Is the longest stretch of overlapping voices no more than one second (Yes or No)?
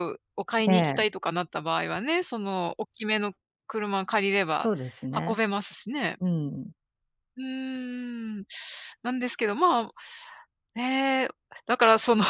Yes